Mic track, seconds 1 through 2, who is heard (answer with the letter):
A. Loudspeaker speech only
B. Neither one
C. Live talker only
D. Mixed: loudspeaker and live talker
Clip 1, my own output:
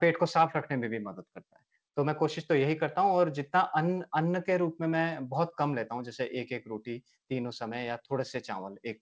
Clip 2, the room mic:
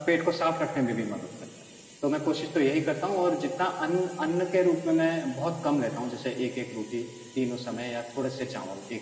A